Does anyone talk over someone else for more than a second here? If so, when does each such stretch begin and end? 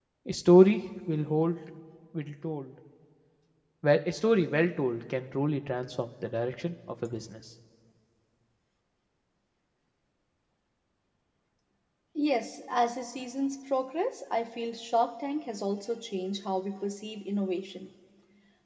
none

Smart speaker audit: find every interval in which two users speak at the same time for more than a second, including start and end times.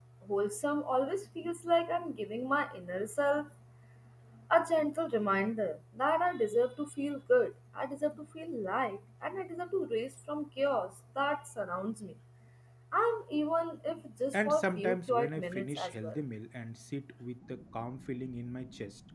14.3-16.2

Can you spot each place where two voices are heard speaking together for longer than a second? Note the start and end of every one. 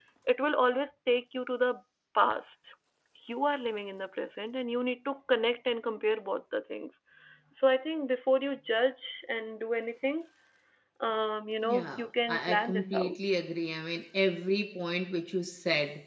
11.7-13.2

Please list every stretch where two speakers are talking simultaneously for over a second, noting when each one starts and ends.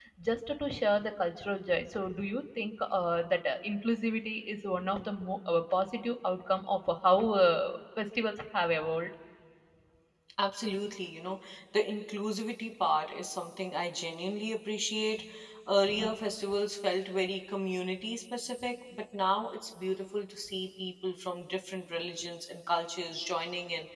none

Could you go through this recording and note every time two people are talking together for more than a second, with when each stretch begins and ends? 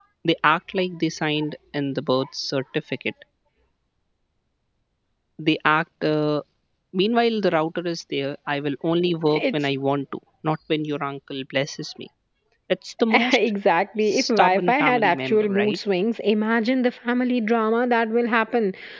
14.1-15.8

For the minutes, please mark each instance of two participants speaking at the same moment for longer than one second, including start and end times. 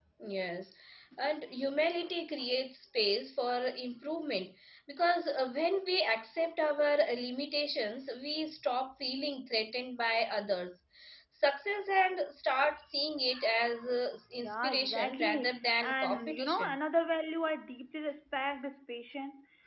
14.4-16.8

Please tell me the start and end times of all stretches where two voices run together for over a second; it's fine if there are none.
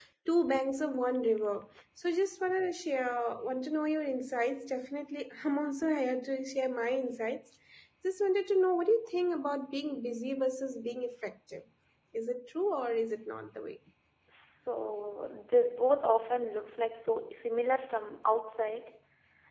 none

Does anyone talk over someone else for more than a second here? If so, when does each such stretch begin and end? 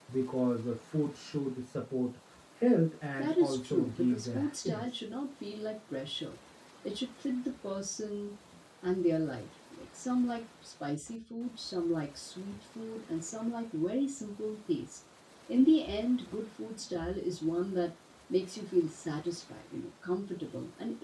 3.2-4.8

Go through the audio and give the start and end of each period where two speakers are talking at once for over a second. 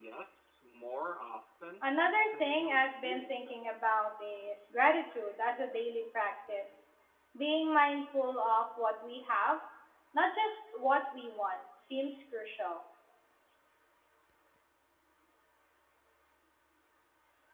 2.2-3.7

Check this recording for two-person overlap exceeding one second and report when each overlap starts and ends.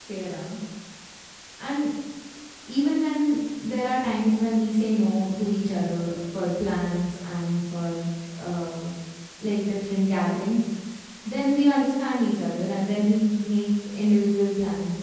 none

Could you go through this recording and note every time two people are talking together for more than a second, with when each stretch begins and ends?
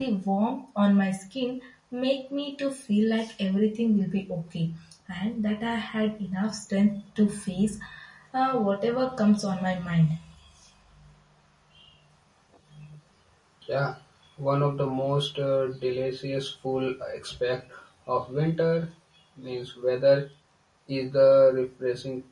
none

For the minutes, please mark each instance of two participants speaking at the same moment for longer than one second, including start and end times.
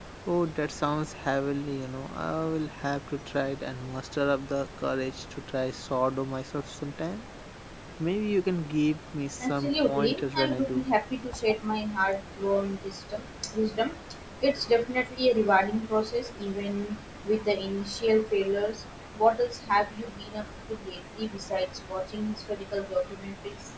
9.4-10.8

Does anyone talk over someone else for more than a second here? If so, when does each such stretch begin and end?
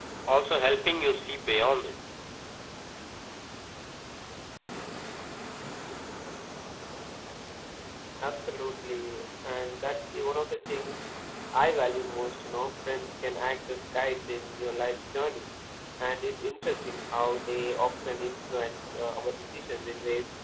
none

